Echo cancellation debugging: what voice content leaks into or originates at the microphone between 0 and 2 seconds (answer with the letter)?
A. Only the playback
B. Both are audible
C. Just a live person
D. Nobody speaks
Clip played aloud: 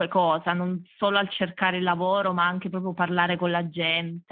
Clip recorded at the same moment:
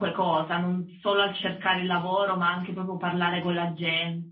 A